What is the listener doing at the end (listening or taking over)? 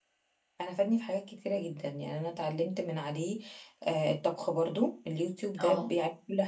listening